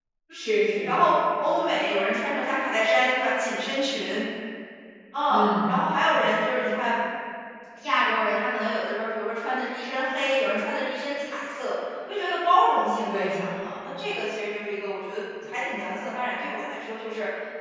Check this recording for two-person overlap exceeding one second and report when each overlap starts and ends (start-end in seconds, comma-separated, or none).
none